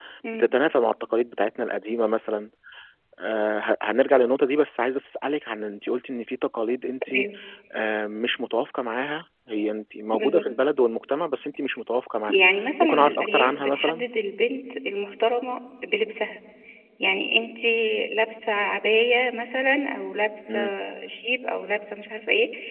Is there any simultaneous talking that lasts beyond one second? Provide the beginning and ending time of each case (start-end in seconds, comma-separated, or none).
12.8-14.1